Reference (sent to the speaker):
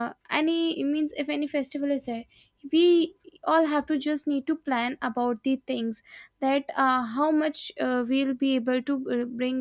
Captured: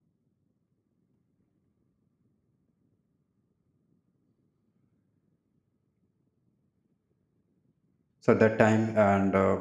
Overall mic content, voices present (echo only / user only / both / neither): user only